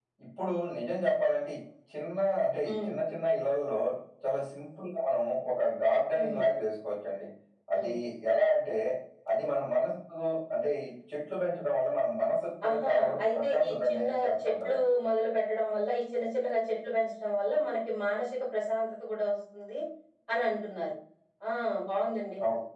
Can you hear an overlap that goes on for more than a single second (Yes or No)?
Yes